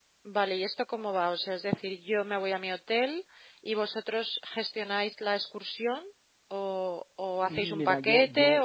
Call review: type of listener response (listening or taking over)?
taking over